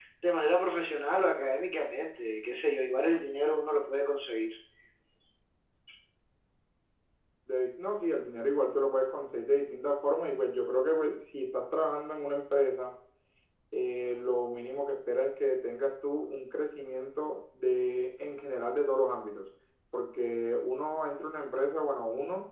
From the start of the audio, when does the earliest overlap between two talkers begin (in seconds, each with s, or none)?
none